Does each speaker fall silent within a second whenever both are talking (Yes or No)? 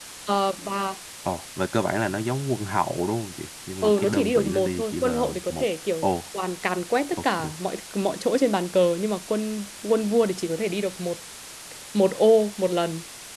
No